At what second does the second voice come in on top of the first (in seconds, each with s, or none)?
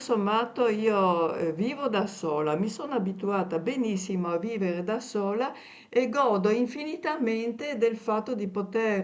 none